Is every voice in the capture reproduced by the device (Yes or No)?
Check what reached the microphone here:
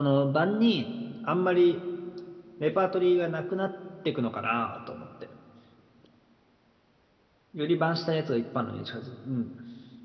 No